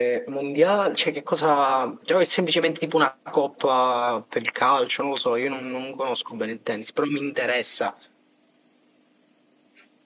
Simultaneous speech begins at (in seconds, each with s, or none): none